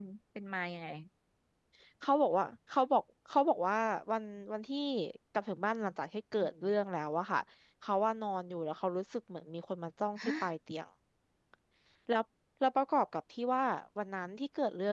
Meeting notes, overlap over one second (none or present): none